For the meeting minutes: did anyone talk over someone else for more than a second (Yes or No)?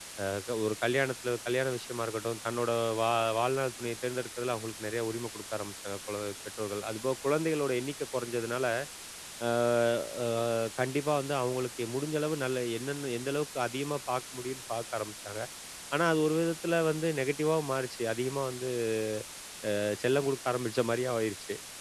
No